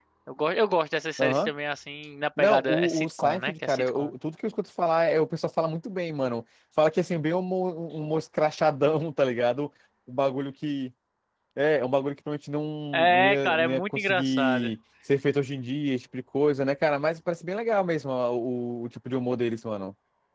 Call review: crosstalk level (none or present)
present